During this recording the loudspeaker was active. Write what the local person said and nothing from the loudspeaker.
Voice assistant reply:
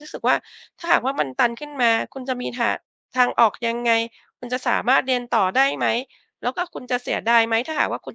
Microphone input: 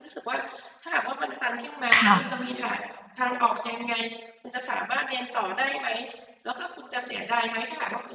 ค่ะ

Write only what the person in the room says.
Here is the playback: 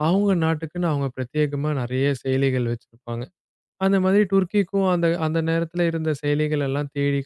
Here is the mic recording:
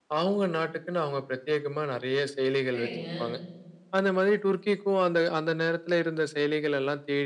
சரிங்க.

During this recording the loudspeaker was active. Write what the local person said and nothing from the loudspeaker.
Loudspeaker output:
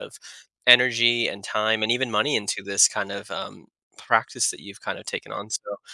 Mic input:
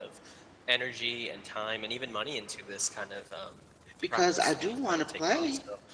because I do want to play.

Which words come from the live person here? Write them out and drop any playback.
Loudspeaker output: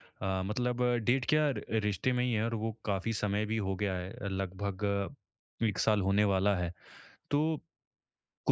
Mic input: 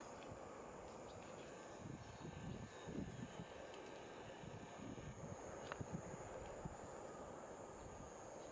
none

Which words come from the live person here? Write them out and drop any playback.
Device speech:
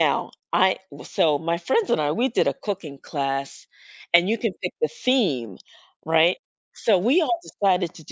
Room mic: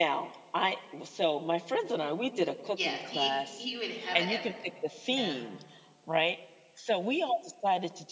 Yes, he he would have it every day. Yeah.

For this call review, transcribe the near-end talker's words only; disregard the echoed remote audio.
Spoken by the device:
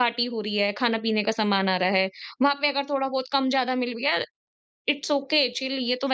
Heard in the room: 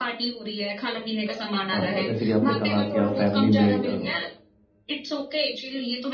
अ, जैसे कि आपने कहा कि आप फैमिली में अ,

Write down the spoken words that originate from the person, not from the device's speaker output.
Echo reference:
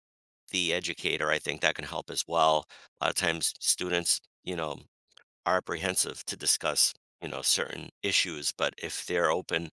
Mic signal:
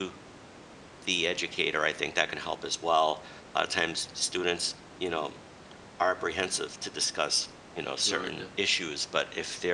good

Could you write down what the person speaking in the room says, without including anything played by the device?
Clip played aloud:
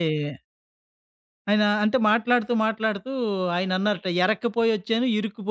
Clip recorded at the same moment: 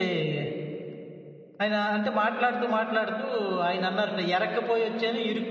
none

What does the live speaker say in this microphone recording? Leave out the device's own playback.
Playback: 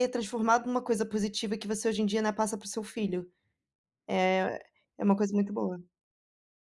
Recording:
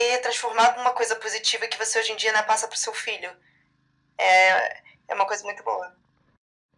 none

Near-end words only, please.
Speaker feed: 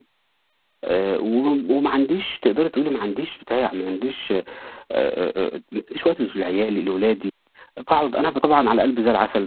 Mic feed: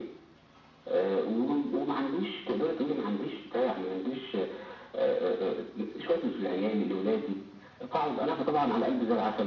none

